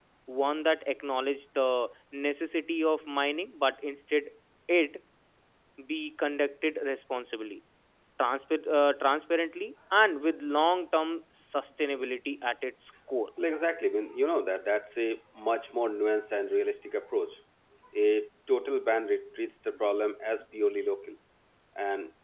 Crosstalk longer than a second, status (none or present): none